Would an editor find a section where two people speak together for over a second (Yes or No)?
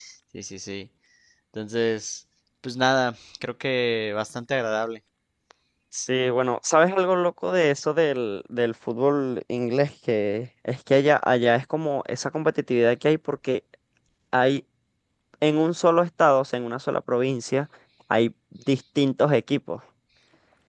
No